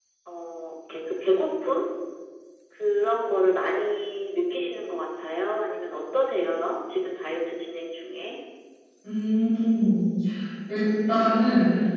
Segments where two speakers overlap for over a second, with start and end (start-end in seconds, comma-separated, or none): none